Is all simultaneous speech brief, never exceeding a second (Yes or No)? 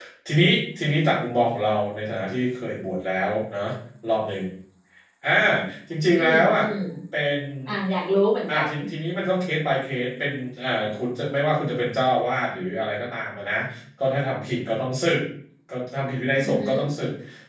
Yes